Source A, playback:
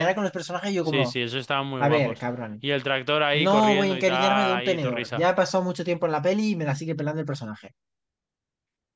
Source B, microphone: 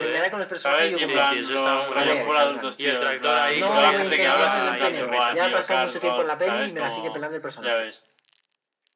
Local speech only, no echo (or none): ¿sabes? Y en plan, lo, rollo full adultos, tío, en plan. Y toda la gente que hablas es en plan de, buah, tío, Cars God, ¿sabes? Como, ya ves.